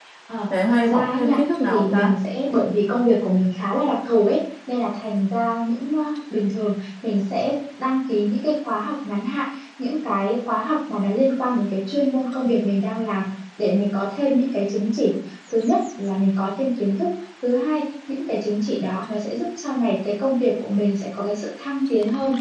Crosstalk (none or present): present